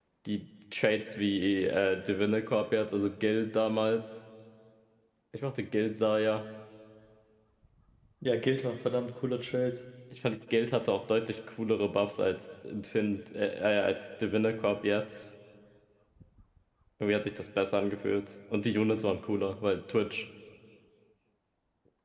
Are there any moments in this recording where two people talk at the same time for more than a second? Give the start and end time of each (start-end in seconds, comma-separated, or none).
none